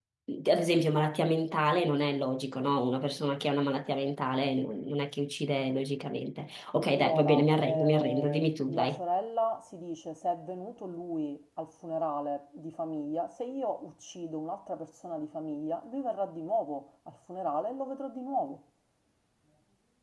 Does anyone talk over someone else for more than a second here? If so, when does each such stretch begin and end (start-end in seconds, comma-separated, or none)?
6.9-9.0